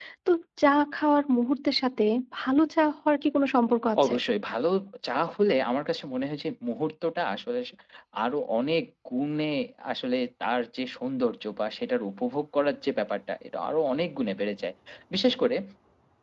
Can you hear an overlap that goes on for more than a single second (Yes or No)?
No